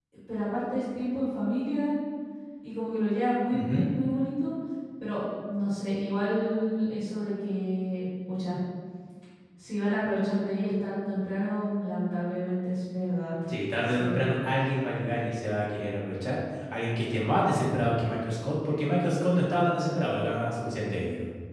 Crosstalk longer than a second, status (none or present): none